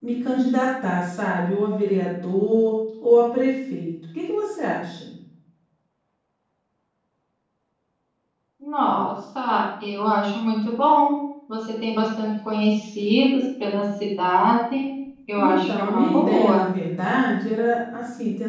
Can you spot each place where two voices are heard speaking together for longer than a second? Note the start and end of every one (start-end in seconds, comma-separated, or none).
15.4-16.6